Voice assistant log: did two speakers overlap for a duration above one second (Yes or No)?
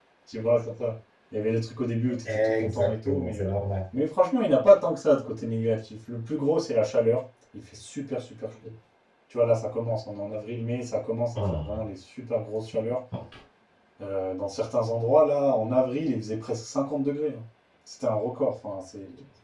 Yes